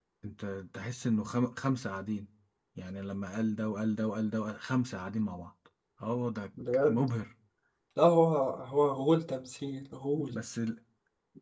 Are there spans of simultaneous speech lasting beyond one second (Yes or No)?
No